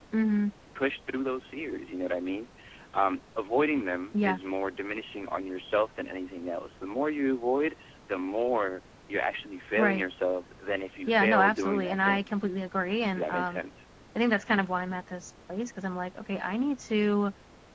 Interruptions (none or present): present